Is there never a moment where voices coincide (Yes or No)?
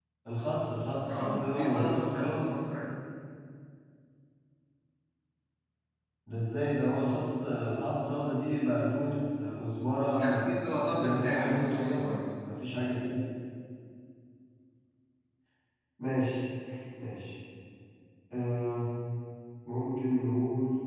No